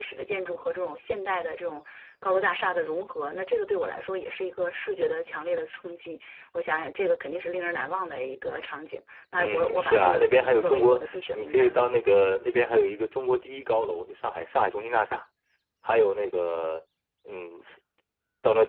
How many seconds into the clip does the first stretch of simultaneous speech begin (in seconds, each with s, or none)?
9.4 s